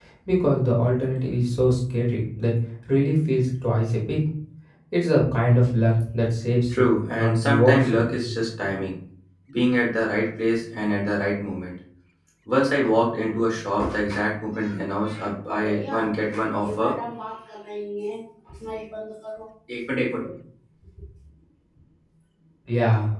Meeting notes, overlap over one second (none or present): present